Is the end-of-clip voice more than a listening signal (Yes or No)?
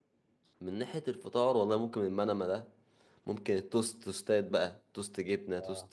No